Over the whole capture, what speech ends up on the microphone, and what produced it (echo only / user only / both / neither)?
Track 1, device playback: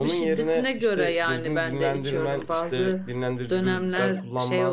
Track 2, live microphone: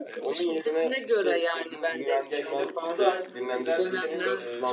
both